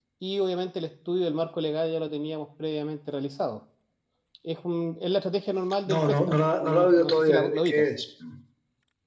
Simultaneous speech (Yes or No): Yes